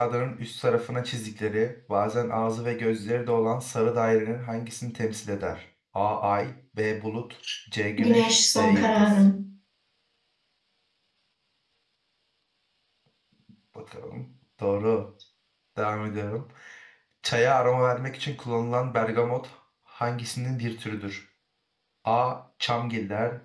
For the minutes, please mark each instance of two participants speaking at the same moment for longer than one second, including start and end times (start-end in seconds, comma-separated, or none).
8.0-9.2